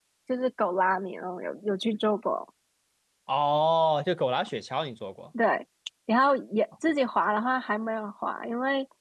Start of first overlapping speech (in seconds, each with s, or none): none